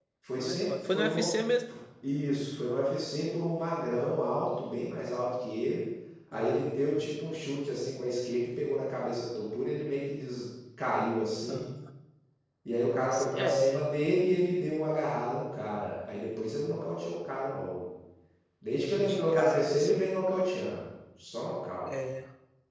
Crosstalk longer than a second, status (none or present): present